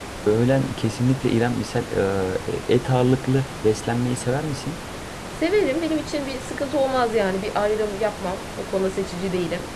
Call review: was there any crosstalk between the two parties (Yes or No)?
No